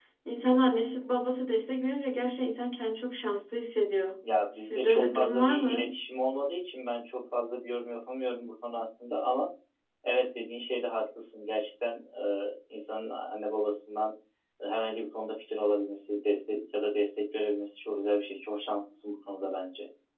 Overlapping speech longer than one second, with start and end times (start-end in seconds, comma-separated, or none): 4.5-5.9